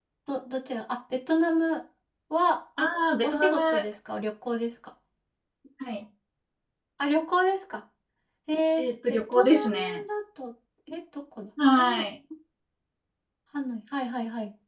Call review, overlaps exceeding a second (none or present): present